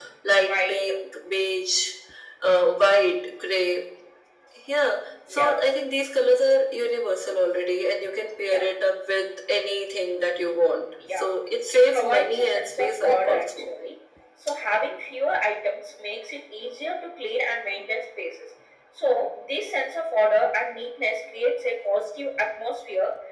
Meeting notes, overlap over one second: present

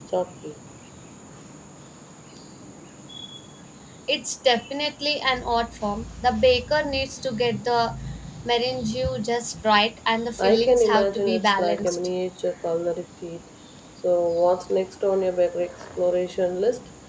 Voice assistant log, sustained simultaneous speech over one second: present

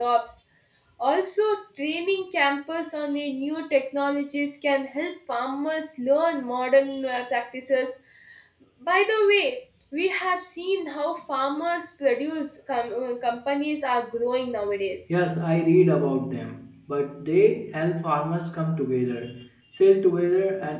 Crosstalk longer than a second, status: none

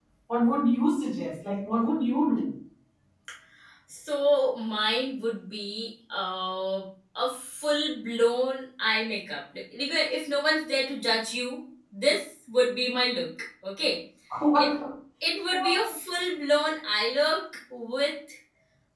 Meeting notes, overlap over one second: none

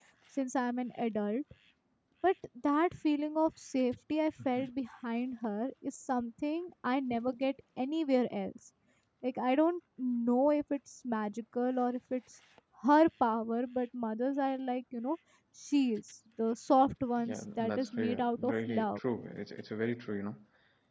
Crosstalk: present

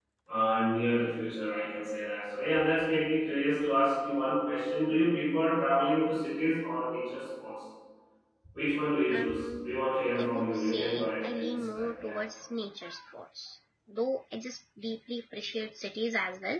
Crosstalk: present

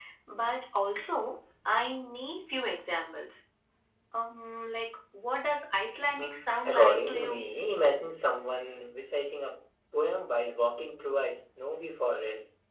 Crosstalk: present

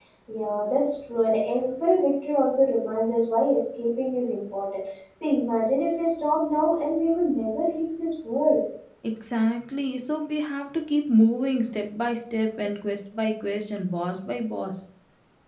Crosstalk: none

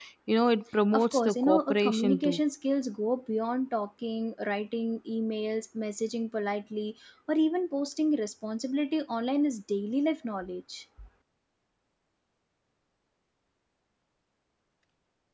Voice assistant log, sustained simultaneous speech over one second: present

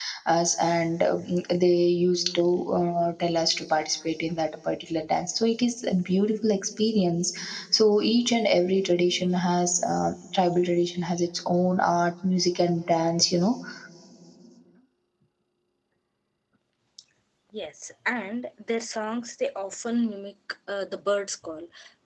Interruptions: none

